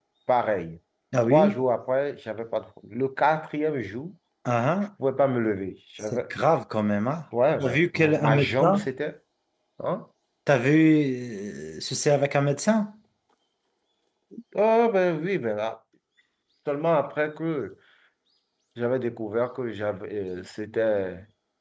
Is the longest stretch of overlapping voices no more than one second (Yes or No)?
No